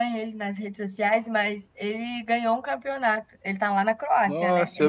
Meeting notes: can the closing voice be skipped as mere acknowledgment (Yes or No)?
No